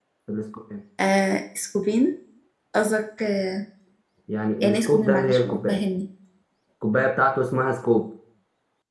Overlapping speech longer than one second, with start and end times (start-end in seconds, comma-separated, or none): 4.6-5.8